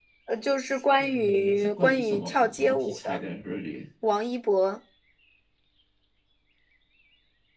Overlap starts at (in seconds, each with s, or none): 1.0 s